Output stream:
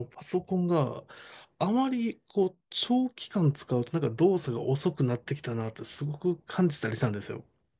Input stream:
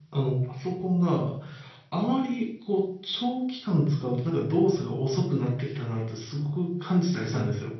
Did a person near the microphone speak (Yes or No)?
No